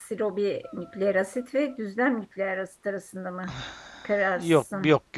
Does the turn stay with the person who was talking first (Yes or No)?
No